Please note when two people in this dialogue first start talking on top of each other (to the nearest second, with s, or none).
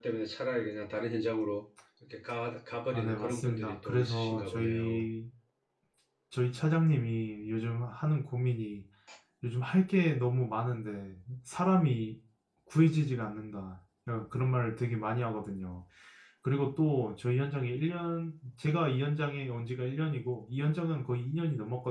3 s